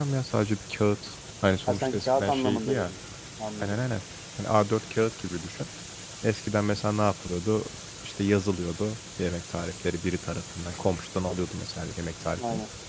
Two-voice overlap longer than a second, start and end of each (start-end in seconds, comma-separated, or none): 1.7-2.9